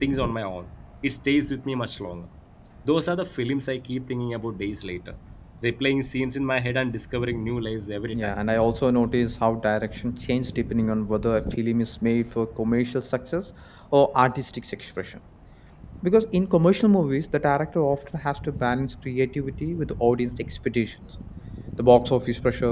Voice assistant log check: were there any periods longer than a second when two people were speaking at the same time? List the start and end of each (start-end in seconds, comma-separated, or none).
none